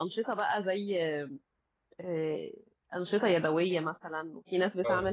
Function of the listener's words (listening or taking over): listening